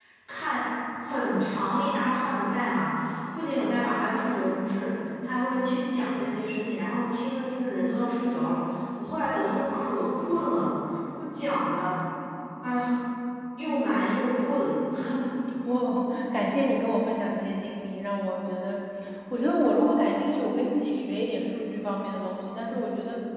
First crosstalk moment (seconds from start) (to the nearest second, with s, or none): none